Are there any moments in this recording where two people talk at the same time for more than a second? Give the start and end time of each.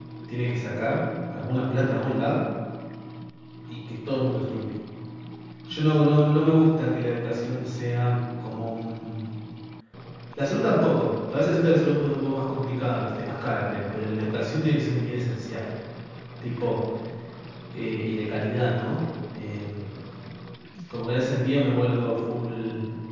none

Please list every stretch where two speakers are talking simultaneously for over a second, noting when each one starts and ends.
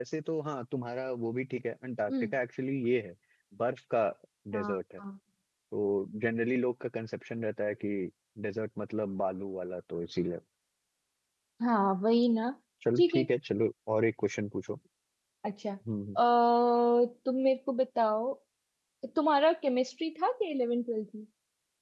none

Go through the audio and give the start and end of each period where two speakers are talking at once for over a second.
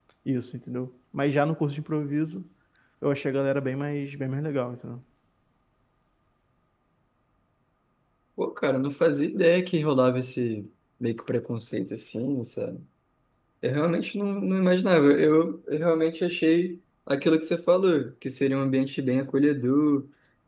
none

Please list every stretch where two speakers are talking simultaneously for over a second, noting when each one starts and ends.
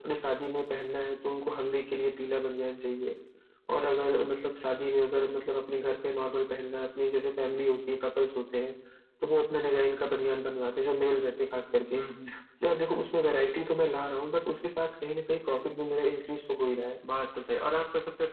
none

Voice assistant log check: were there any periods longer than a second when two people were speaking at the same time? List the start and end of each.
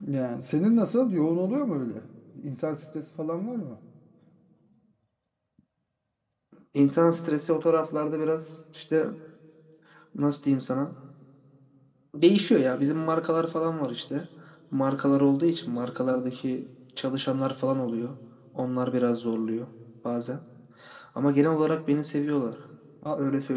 none

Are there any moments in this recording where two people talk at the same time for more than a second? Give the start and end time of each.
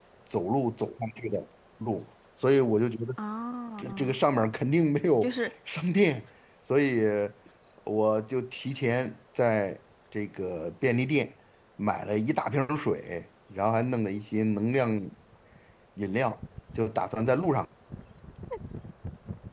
none

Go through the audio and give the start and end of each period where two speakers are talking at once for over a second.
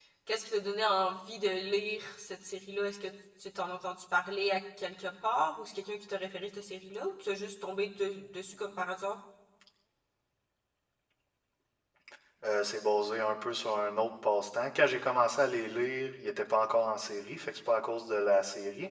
none

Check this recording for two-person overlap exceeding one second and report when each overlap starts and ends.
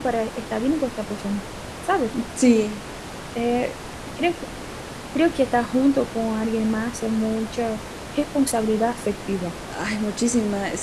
none

